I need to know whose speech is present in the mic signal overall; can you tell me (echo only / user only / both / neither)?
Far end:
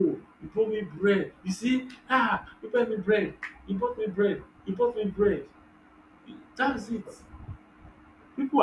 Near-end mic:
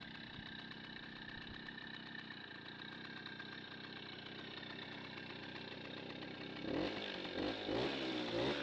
neither